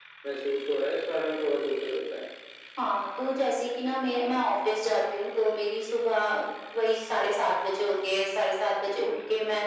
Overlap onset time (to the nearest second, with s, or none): none